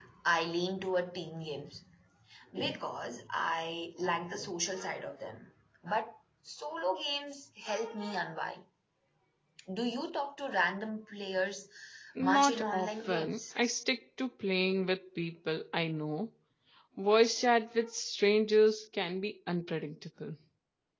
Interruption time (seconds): 12.2 s

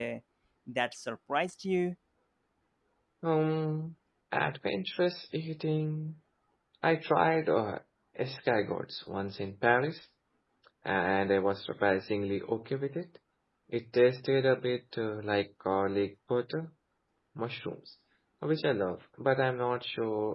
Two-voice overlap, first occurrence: none

